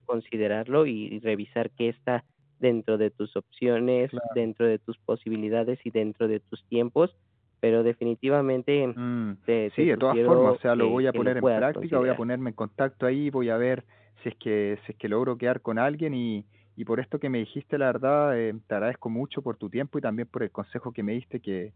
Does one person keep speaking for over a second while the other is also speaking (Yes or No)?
Yes